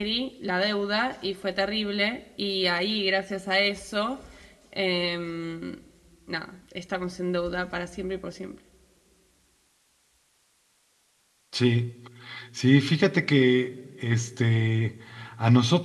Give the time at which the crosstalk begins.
none

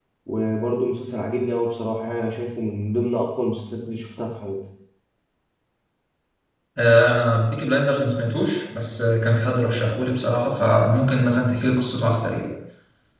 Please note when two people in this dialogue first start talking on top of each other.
none

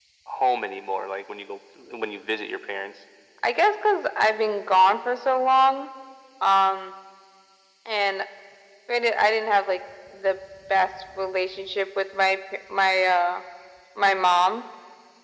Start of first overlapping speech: none

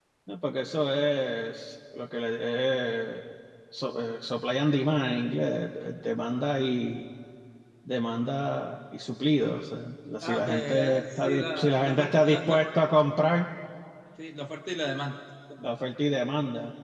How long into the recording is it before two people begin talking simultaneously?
10.2 s

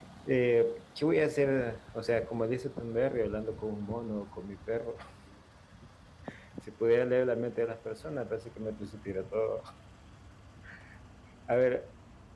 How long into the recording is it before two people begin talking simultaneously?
none

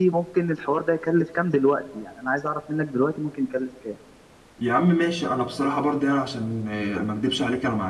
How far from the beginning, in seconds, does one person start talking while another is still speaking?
none

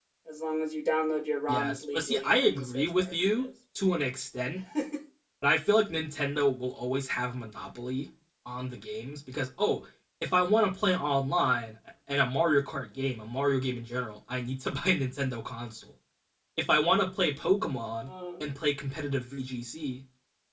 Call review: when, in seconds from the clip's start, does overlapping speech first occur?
1.5 s

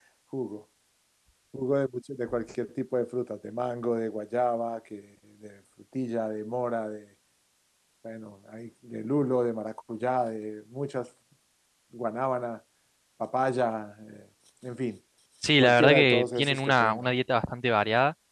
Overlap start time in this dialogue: 15.6 s

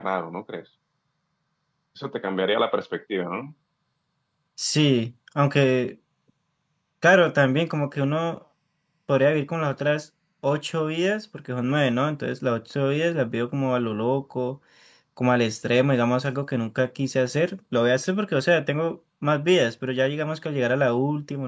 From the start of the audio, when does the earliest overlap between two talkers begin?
none

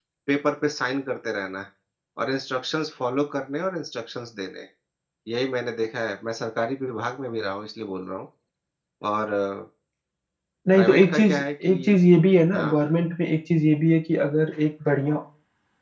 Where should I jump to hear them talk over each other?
10.7 s

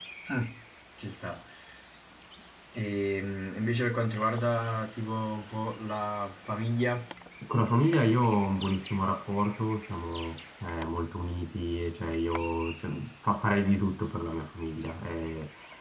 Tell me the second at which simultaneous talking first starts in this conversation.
none

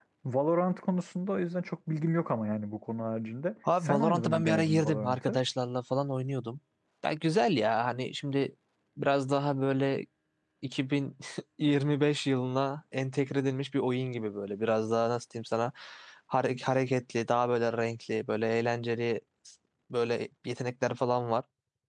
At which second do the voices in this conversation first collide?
3.6 s

